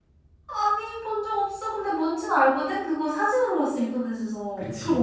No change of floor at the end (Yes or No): No